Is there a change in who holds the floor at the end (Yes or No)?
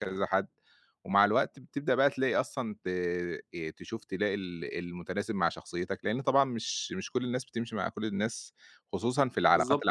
Yes